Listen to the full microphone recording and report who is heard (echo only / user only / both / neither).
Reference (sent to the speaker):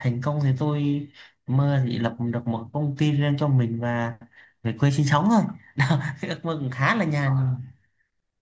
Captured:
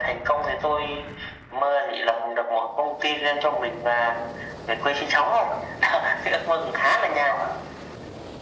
echo only